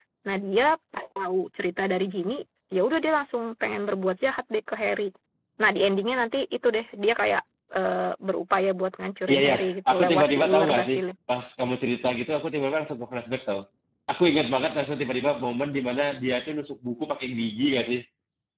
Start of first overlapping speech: 9.3 s

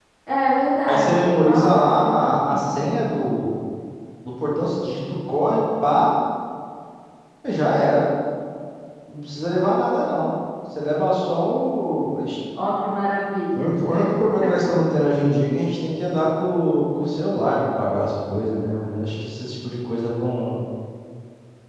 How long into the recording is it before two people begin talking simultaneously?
0.9 s

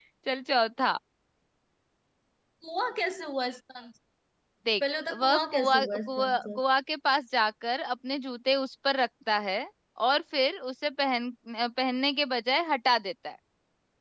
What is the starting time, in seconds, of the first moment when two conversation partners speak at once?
5.1 s

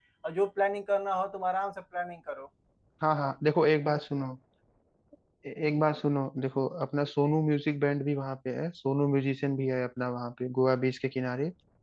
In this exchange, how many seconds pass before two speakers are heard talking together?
none

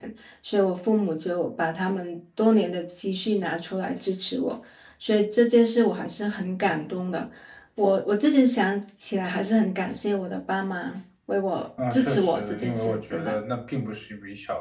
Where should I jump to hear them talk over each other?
11.8 s

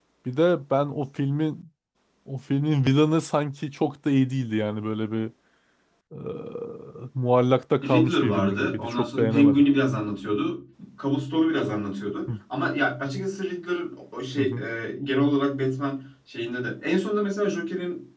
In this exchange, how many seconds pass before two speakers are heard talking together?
7.8 s

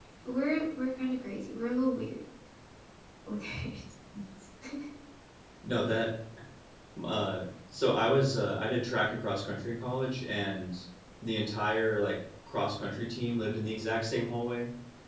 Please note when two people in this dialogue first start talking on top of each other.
none

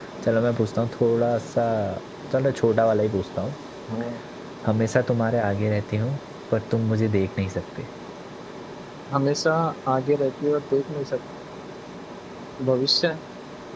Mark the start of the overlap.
none

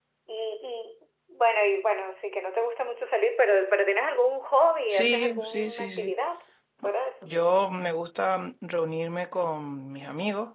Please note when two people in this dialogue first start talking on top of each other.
4.9 s

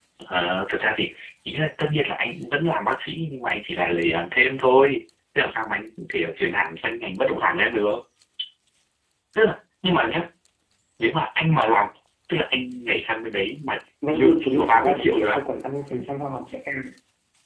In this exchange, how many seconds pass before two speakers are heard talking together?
14.1 s

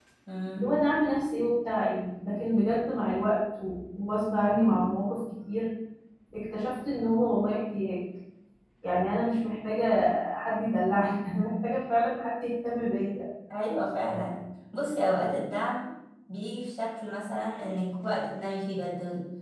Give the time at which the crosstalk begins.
none

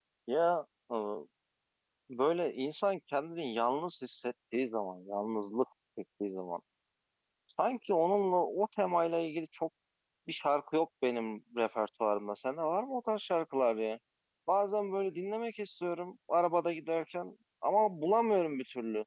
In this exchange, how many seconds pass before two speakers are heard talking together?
none

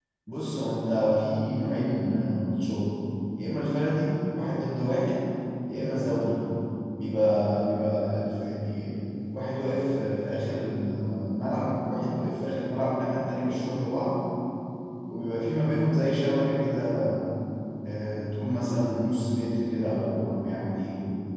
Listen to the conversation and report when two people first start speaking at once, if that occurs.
none

